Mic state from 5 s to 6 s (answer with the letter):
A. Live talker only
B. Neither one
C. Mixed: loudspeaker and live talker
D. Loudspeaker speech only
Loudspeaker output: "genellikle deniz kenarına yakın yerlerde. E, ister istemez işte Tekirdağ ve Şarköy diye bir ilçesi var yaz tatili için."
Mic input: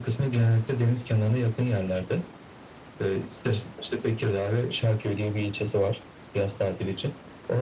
D